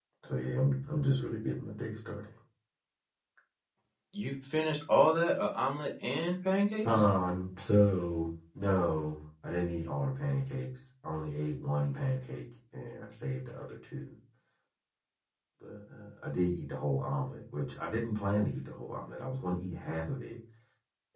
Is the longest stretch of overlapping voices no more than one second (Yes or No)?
Yes